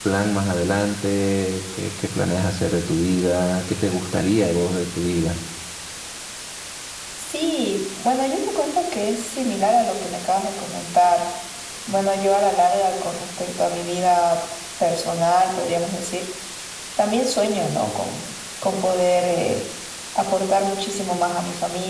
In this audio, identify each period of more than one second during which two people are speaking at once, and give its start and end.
none

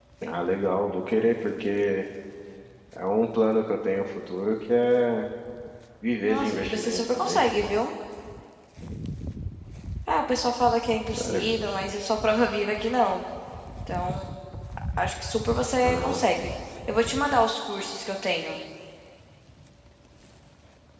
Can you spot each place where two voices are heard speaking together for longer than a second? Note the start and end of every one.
6.2-7.4

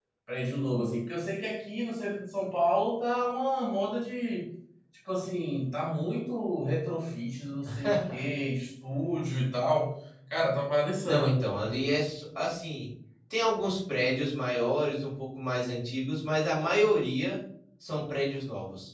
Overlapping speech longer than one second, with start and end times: none

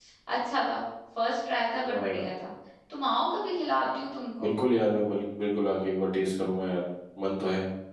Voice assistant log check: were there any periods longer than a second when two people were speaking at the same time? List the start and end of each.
none

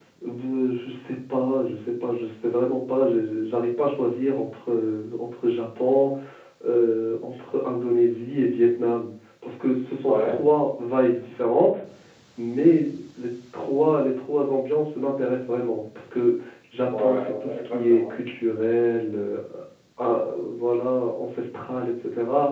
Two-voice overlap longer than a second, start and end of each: 16.9-18.2

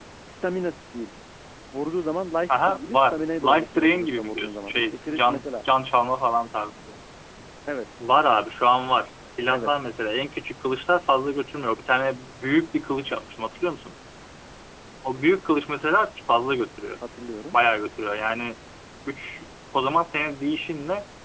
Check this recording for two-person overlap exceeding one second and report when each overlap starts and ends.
2.5-5.5

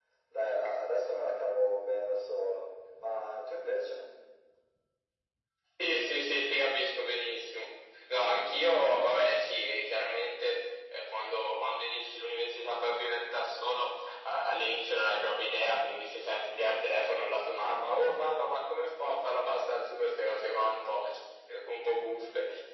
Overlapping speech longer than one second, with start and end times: none

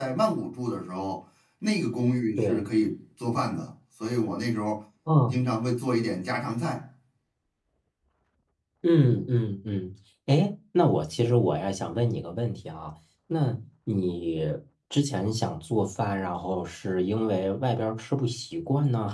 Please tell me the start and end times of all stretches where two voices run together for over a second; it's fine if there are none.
none

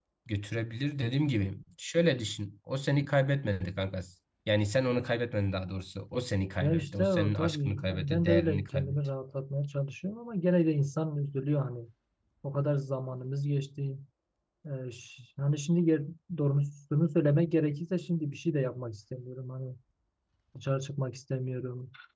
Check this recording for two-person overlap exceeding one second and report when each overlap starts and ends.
6.6-9.0

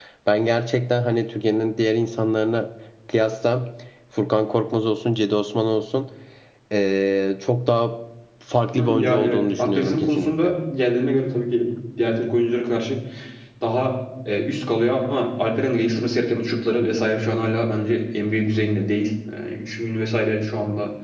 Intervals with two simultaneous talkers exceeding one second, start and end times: 8.8-10.6

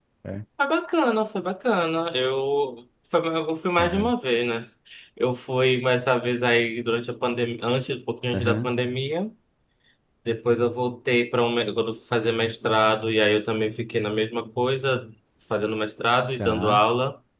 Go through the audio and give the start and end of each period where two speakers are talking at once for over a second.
none

